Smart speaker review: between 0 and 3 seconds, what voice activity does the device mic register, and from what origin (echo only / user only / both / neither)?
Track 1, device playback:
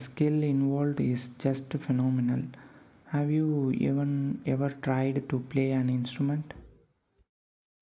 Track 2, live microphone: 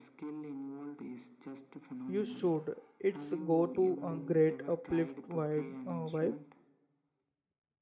both